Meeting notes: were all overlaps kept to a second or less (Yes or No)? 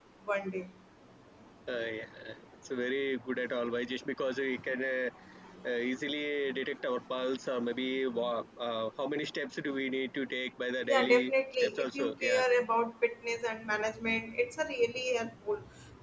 No